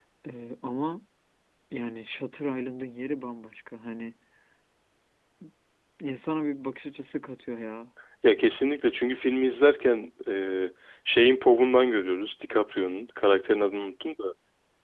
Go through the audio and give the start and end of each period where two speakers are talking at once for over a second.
none

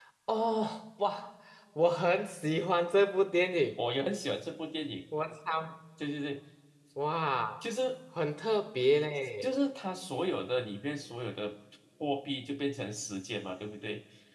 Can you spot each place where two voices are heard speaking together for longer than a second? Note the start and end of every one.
none

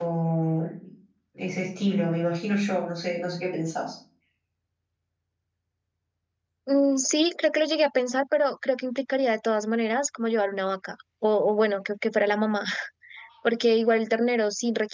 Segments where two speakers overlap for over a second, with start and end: none

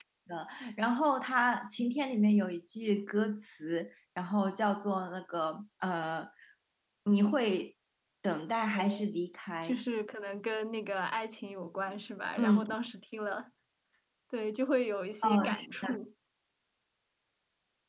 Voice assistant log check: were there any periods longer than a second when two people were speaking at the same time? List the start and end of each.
none

